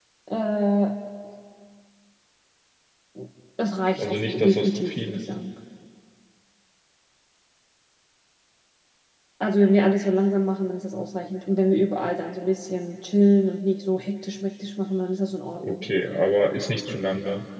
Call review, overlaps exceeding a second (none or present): present